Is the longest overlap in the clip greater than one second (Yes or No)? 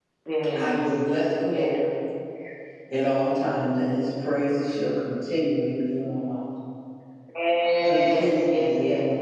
Yes